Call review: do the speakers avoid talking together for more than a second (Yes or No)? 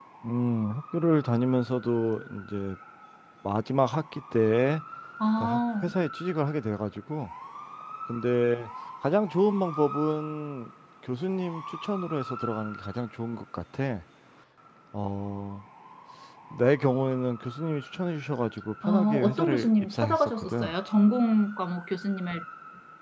No